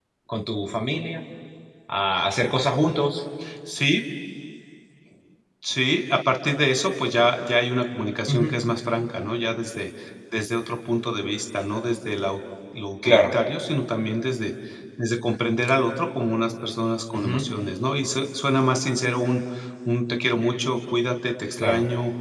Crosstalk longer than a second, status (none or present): none